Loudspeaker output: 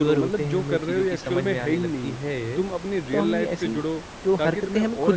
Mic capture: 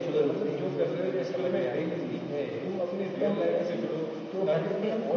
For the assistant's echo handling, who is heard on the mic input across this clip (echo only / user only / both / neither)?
echo only